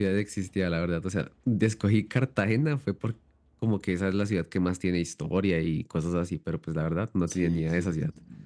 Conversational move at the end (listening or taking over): taking over